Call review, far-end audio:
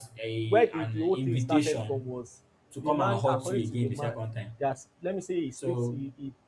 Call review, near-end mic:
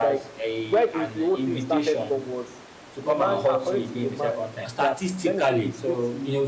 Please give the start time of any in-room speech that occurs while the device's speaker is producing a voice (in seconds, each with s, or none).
4.6 s